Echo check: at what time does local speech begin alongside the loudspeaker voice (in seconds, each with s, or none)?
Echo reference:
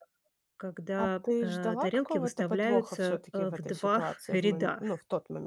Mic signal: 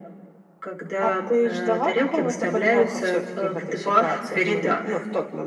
none